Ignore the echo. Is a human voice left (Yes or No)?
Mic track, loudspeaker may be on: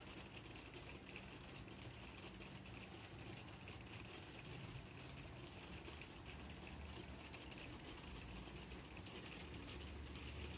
No